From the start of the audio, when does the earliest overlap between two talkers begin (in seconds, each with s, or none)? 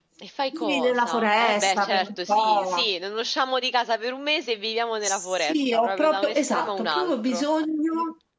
0.5 s